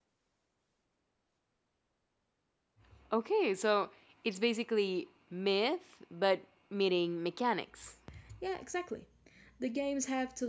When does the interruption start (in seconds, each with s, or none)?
none